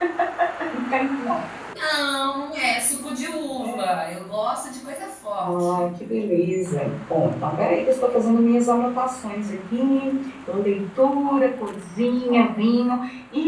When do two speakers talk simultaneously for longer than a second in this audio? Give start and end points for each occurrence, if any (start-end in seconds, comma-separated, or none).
none